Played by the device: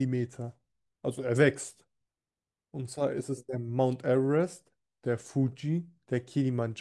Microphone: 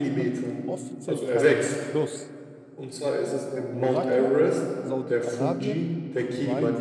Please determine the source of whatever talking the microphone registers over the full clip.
both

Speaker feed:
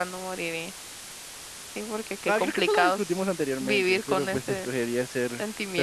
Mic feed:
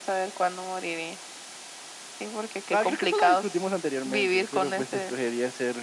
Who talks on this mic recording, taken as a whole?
echo only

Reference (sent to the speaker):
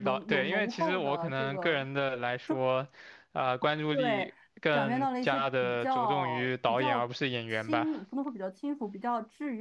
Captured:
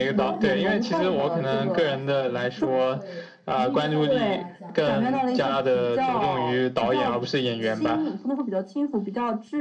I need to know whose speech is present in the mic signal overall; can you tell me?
both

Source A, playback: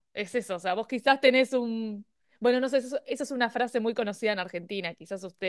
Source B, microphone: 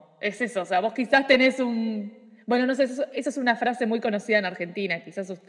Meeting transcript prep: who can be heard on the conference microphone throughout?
echo only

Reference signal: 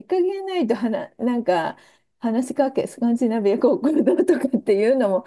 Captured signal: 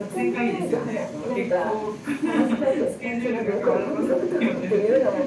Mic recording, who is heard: both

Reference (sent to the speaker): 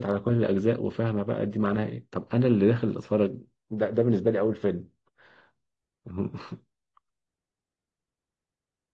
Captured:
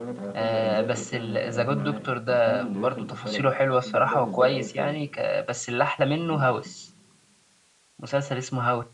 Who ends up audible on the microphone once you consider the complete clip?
both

